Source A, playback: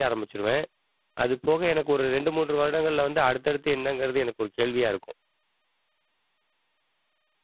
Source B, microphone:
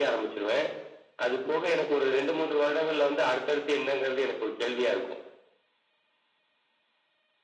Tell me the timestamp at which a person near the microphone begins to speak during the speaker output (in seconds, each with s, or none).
none